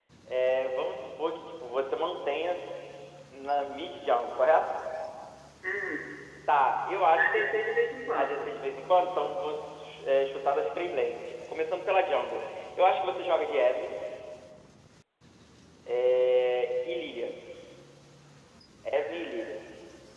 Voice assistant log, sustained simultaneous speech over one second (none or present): none